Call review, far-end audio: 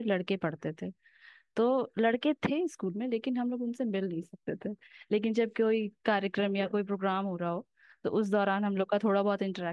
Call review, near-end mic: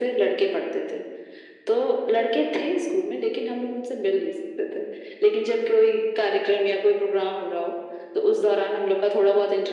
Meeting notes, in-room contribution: none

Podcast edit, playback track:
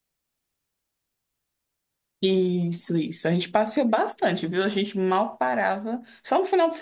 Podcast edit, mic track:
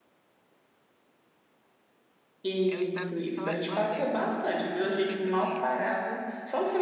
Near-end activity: present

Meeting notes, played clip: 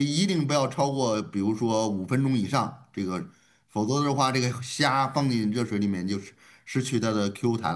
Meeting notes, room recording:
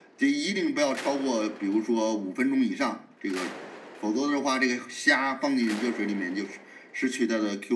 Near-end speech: none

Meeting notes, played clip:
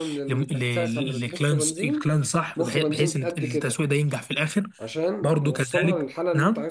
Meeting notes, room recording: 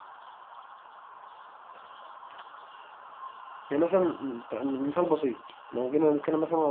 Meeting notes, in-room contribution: present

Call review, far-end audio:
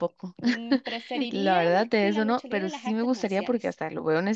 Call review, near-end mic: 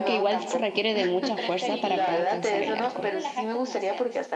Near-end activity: present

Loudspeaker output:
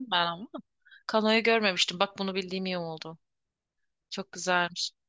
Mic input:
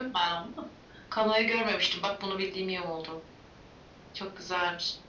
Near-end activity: none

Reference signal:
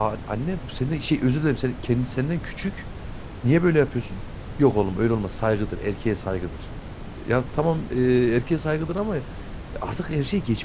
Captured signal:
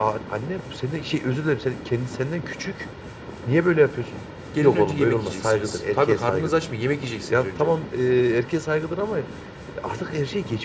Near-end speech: present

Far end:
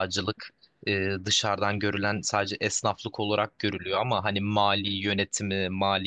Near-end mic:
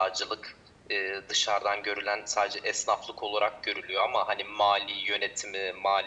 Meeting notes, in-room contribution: none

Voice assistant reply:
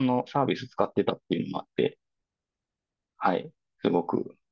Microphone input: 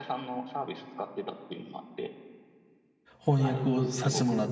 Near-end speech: present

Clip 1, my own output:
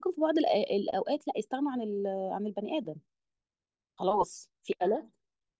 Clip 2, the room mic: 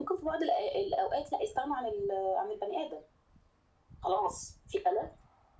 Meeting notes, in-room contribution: none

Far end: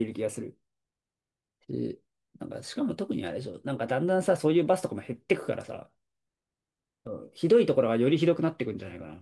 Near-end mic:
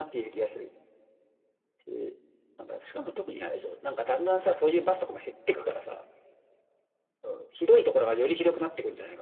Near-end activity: none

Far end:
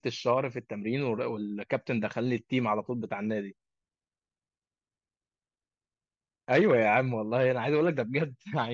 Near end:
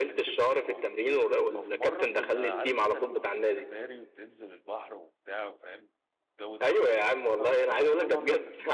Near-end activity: present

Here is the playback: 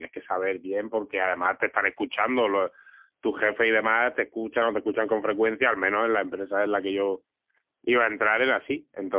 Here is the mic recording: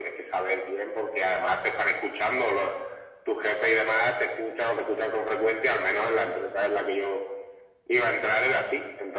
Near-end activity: none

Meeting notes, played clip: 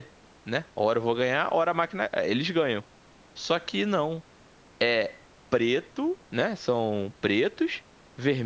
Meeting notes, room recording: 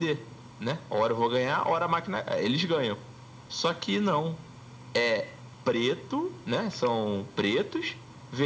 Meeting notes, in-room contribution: none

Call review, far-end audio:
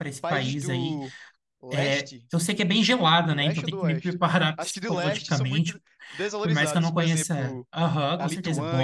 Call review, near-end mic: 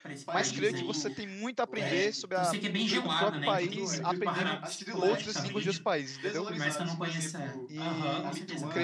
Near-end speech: present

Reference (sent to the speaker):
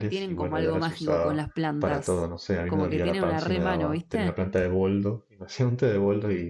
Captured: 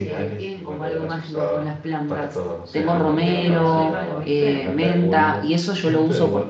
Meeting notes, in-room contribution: present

